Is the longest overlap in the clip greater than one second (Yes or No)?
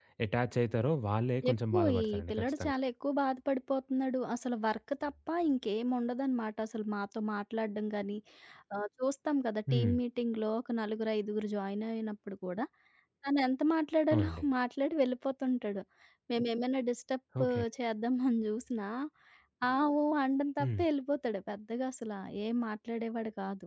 Yes